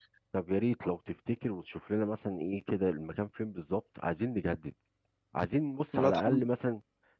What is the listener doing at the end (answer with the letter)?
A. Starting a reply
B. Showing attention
B